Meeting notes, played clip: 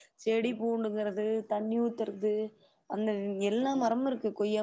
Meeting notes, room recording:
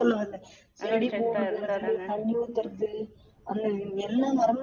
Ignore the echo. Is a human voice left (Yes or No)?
Yes